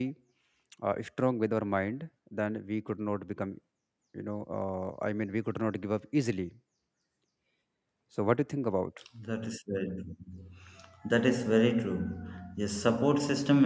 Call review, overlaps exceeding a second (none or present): none